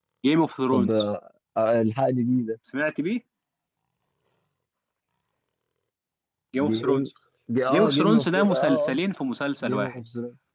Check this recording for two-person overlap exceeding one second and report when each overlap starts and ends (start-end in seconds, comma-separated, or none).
7.7-9.0